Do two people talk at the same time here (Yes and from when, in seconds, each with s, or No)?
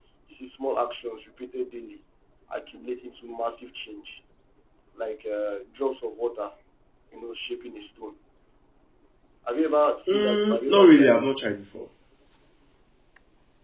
Yes, from 10.1 s